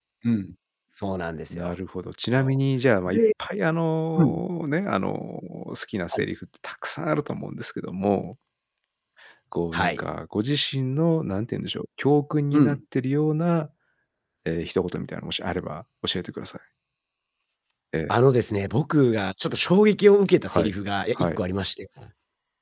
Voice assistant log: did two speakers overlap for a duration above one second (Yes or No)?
No